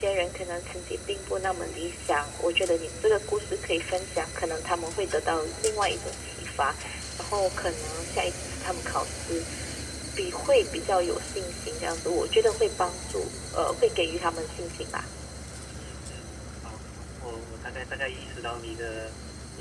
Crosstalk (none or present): none